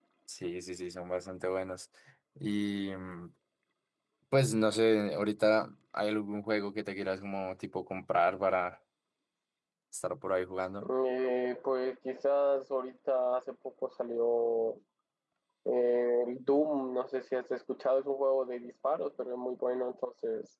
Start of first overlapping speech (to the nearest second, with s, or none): none